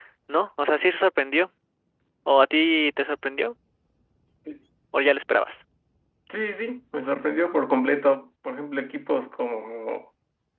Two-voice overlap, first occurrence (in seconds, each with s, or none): none